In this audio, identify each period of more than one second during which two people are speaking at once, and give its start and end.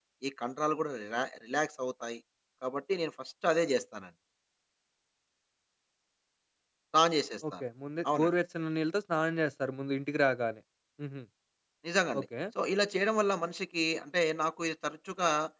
none

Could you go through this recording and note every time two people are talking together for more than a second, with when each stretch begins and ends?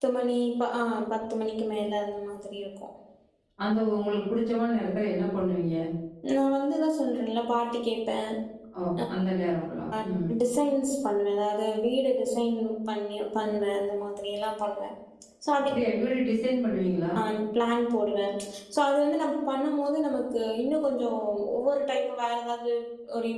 none

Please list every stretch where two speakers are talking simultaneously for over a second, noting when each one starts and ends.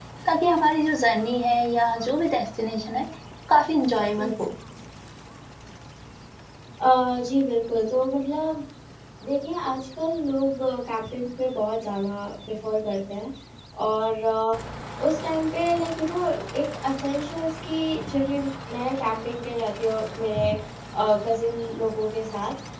none

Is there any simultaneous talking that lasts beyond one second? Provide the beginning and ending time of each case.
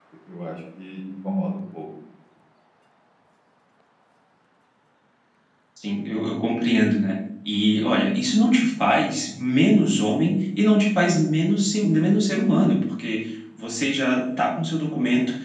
none

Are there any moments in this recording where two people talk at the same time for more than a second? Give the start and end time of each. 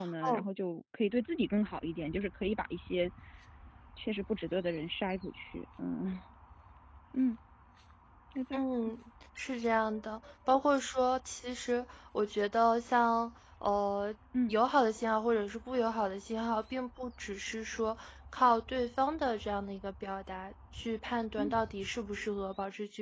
none

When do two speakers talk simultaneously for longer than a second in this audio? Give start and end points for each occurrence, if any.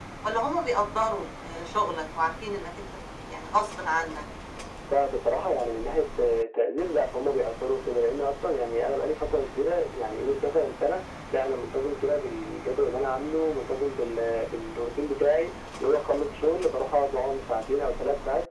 none

